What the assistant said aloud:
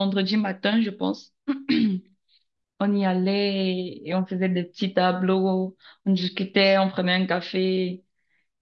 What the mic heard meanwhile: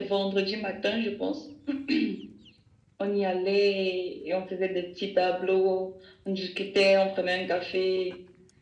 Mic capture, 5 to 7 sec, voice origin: echo only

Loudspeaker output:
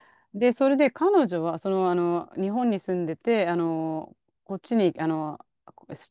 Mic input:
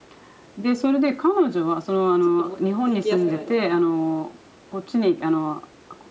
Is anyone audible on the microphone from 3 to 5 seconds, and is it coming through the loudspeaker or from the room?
both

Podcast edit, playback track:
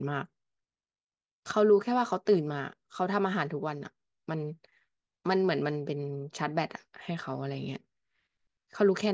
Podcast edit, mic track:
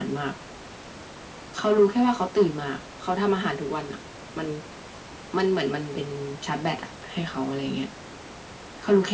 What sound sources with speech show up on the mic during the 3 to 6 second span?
echo only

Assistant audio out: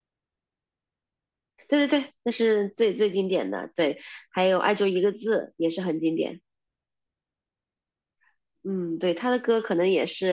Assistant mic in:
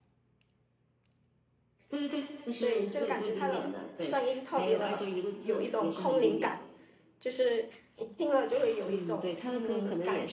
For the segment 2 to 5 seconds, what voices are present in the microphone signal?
both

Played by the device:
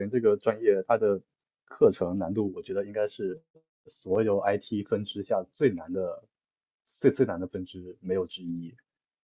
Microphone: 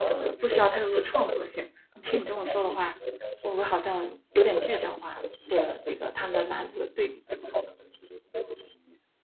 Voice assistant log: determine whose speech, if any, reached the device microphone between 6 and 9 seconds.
both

